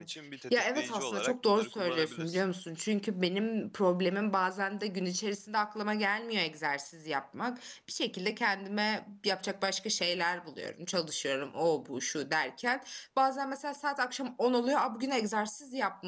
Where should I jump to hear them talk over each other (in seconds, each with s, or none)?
0.5 s